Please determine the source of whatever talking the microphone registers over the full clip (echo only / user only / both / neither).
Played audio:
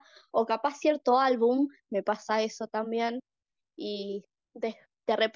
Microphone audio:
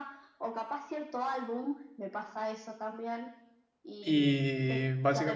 both